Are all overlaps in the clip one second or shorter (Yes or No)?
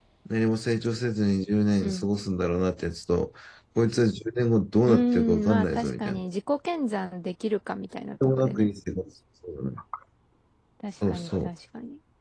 No